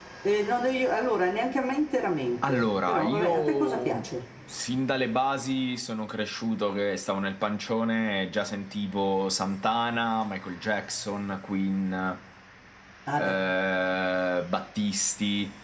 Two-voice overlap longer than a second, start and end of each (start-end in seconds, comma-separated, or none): 2.4-4.0